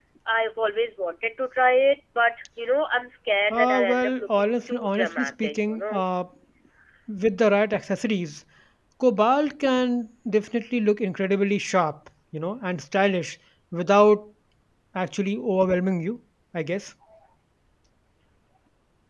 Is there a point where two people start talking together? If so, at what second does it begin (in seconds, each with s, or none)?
3.5 s